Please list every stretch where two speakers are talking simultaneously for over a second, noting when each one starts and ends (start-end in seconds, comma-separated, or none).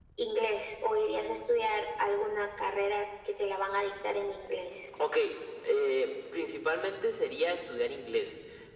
none